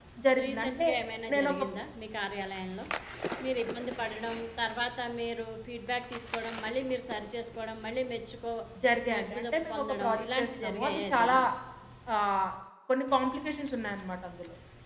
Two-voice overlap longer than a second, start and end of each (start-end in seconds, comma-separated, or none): 9.1-11.4